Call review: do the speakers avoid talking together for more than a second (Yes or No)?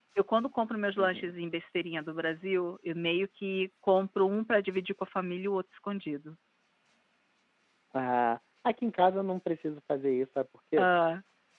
Yes